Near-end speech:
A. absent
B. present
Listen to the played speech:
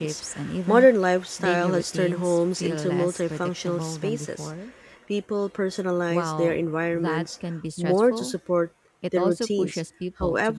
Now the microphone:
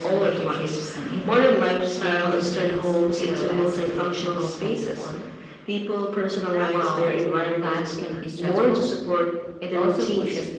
B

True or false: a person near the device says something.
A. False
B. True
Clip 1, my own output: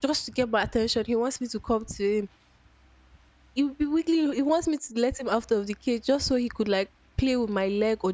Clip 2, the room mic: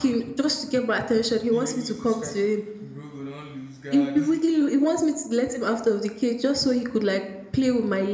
B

